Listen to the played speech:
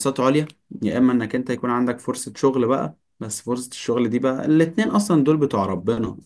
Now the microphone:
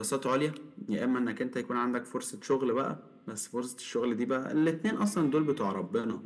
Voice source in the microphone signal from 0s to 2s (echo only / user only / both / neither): echo only